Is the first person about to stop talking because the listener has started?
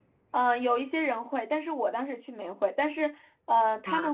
No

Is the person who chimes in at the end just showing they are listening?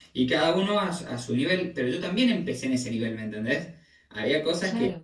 Yes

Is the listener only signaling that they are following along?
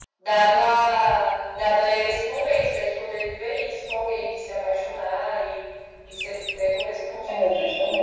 No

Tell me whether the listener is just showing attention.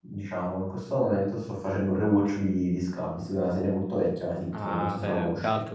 No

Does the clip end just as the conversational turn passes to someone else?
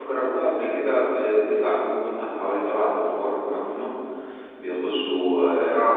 No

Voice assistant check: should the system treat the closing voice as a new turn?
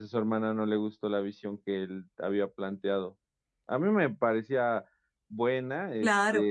No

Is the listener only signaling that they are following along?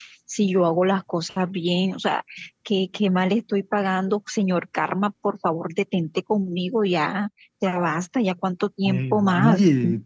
No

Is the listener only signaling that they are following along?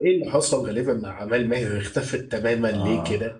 No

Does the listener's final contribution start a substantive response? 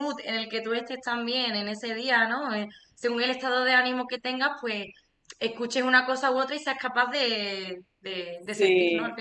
Yes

